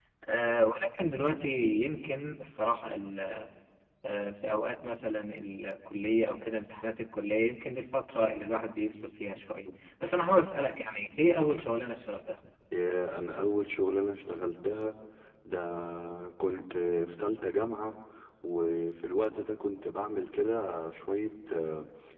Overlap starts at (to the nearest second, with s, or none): none